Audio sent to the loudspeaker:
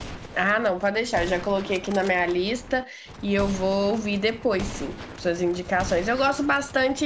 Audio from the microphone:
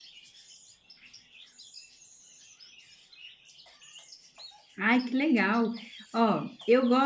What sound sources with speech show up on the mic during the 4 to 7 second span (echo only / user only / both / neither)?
user only